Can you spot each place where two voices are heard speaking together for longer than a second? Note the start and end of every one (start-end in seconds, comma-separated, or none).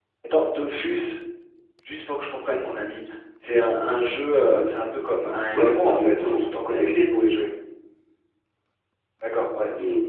5.5-7.3